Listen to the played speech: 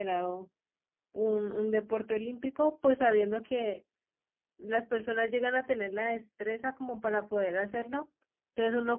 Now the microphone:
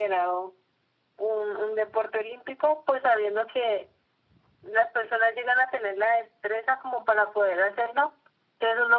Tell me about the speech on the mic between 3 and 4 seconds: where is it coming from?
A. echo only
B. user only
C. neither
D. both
A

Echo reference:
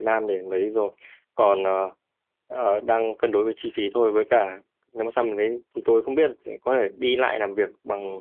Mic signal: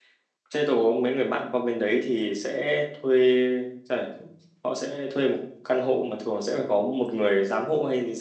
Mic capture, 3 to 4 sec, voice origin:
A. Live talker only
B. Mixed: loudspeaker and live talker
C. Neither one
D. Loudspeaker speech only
A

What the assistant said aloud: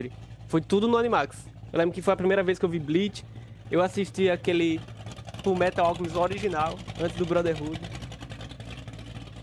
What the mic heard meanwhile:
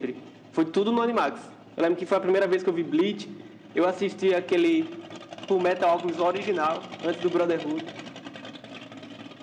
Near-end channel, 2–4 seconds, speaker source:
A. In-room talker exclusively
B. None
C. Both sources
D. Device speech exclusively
D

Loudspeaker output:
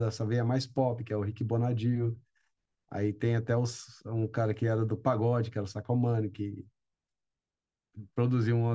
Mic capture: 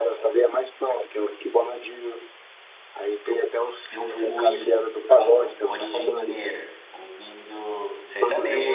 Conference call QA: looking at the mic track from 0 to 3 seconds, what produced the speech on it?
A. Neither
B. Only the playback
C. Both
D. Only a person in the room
B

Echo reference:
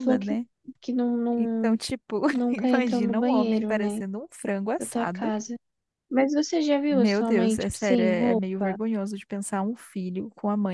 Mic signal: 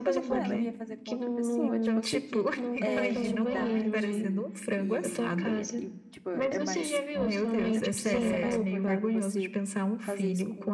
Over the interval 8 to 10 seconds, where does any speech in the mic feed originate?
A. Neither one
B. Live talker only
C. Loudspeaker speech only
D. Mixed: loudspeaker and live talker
D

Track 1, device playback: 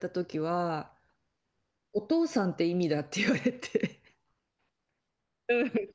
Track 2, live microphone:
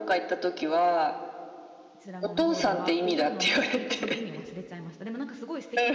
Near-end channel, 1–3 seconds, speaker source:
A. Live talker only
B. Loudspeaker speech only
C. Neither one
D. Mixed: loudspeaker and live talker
D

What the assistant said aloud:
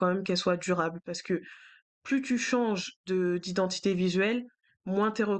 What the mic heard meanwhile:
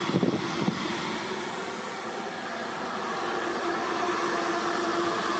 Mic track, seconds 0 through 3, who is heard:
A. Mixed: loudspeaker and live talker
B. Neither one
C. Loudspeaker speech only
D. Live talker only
B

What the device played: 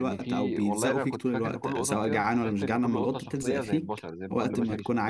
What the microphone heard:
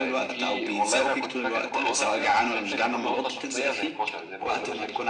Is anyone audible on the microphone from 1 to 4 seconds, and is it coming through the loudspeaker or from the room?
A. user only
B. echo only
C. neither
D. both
B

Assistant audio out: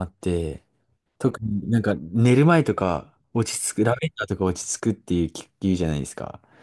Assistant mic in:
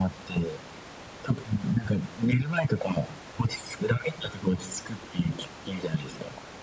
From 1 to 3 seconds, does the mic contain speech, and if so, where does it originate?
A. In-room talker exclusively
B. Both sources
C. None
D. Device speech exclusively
D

